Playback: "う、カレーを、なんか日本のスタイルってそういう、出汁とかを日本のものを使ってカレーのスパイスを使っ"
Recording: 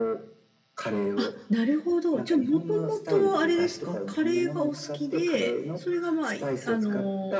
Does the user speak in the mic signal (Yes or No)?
Yes